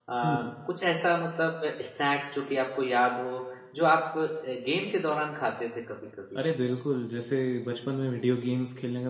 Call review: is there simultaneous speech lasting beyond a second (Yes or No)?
No